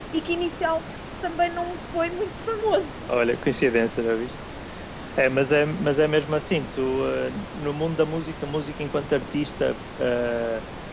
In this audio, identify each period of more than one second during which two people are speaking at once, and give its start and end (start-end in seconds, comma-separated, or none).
none